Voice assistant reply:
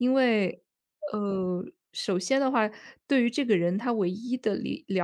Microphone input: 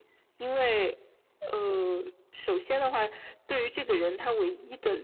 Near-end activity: none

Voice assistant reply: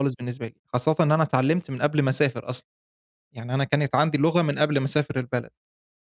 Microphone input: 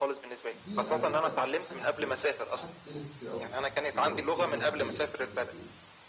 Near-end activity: present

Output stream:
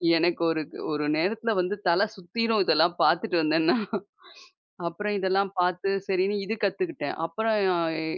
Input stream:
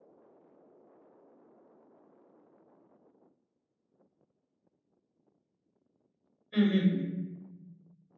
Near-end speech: present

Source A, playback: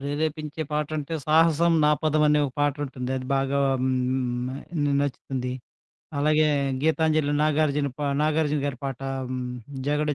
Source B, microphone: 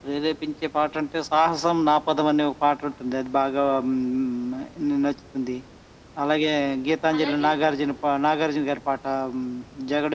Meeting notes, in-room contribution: present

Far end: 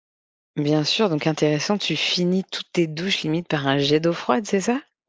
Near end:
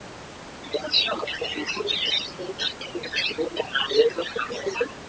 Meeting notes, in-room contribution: none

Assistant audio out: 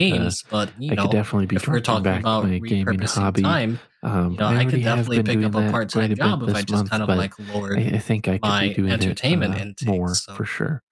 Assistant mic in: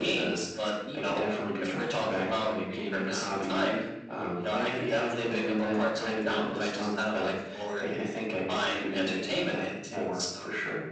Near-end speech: none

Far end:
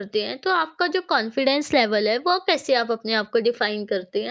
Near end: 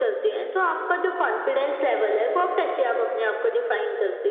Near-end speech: none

